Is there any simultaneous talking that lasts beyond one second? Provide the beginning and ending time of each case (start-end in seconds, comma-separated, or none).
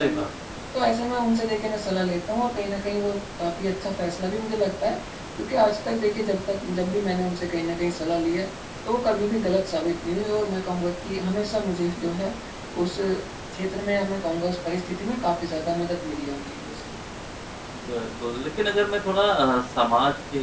none